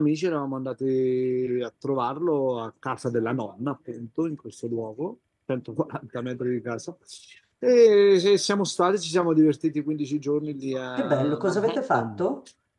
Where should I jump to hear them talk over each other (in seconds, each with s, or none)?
11.0 s